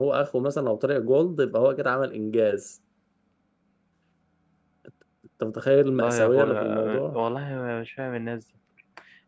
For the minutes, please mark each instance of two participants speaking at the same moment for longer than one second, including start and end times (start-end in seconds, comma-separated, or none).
6.0-7.2